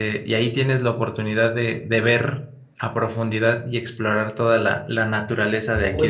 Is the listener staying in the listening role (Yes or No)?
No